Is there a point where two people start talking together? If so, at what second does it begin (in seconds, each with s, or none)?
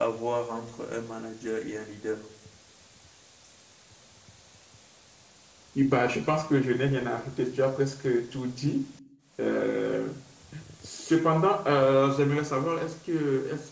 none